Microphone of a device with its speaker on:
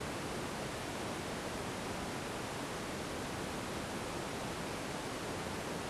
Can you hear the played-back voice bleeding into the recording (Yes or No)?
No